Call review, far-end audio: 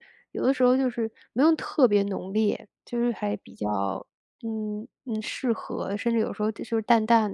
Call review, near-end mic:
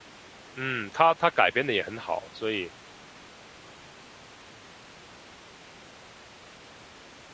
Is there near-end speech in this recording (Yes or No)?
Yes